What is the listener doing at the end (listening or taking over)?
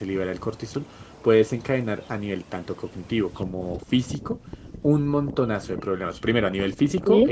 listening